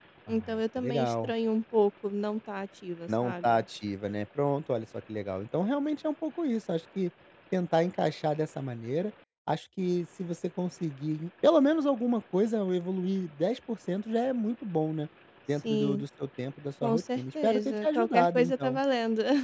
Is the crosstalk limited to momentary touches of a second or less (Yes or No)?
No